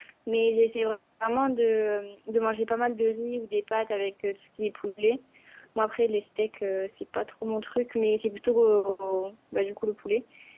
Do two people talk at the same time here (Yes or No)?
No